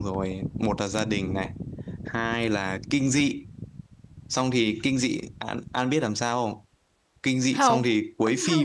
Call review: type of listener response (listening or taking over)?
listening